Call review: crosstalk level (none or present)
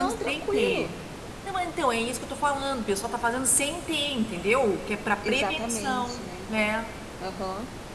present